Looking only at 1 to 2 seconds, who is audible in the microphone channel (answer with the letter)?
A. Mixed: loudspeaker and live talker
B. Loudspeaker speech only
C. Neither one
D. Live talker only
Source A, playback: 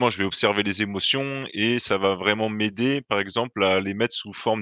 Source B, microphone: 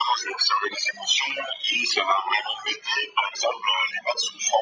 B